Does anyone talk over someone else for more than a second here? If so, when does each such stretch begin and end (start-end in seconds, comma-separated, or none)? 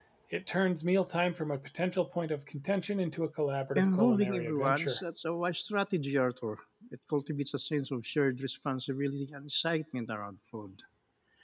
3.8-5.0